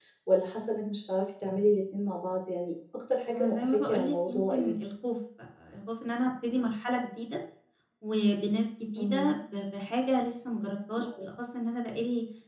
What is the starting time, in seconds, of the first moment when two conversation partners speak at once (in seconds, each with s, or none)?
3.3 s